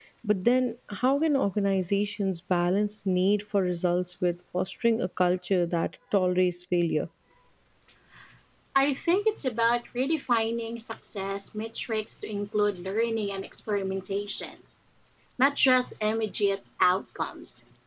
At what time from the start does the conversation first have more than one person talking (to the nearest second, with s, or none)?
none